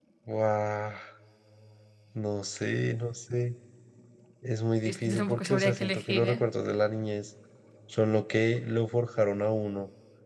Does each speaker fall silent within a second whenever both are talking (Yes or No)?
No